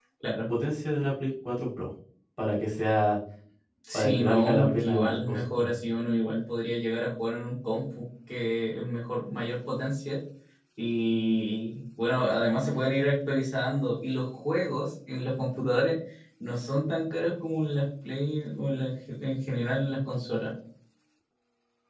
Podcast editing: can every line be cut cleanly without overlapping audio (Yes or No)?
No